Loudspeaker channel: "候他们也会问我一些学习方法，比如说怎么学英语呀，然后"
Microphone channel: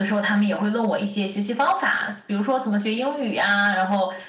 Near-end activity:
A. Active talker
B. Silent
B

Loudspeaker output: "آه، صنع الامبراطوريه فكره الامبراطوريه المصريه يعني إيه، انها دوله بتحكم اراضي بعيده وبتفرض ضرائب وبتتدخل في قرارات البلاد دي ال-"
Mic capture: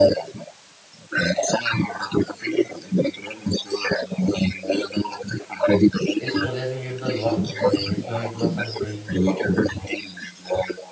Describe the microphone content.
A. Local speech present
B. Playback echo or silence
A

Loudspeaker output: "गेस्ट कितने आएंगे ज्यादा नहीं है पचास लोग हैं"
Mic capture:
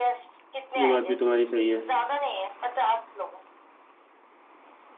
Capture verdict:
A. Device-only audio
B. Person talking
B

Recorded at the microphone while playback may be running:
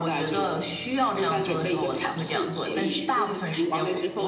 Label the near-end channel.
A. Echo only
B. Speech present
B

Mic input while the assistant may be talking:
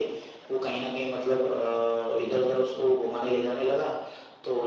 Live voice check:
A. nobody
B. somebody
B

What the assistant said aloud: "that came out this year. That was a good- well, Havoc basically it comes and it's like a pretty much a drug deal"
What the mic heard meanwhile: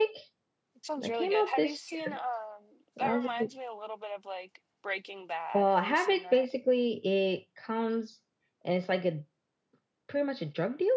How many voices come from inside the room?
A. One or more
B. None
A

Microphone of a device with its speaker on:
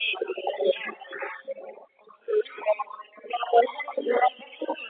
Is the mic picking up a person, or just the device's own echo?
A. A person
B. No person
B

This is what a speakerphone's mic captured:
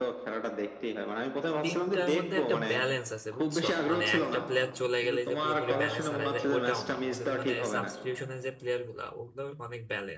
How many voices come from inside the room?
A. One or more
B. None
A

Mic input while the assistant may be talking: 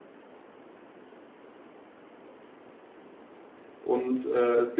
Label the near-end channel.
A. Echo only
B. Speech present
B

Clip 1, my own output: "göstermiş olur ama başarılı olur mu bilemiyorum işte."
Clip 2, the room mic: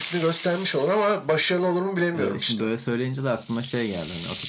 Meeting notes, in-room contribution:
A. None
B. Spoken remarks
B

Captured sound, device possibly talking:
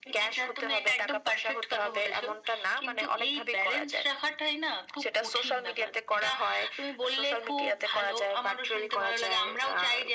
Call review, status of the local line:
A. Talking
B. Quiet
B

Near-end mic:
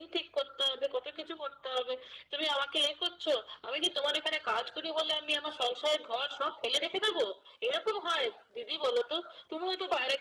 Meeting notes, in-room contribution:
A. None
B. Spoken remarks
A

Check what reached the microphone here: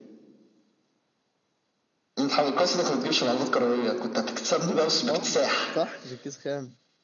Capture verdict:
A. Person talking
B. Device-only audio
A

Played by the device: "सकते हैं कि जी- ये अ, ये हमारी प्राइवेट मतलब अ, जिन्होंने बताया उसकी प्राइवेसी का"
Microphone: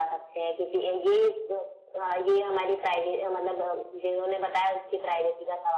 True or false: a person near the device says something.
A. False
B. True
A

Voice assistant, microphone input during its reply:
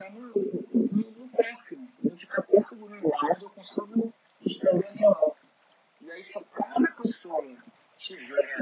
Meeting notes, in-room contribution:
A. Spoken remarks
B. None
B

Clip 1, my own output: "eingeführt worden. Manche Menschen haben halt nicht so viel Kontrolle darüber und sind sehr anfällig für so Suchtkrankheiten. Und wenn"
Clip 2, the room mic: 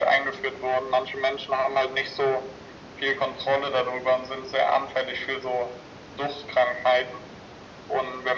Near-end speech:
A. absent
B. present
A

